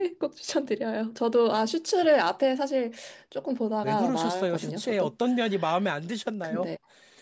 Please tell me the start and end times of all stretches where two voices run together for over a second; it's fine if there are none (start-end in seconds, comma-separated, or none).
3.8-5.1